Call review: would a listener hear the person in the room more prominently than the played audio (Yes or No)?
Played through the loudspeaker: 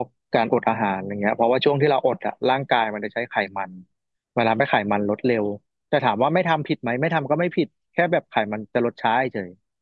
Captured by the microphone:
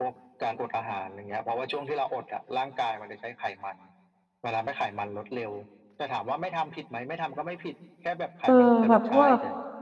Yes